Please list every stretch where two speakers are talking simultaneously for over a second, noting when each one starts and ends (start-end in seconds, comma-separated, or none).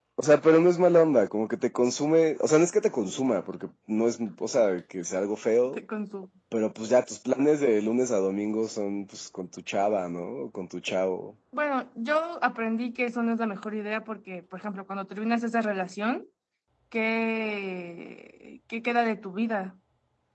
none